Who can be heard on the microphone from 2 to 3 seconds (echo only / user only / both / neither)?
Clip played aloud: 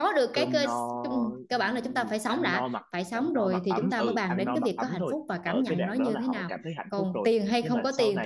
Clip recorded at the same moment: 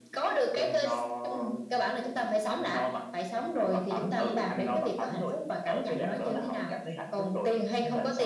echo only